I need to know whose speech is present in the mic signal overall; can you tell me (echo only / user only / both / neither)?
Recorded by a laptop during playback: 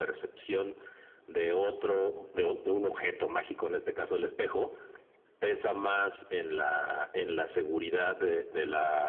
echo only